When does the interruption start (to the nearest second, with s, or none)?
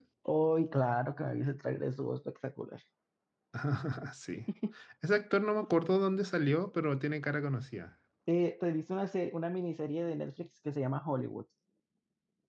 none